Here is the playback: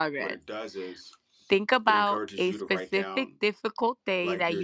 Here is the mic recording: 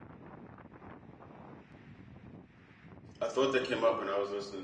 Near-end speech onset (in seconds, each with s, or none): 3.2 s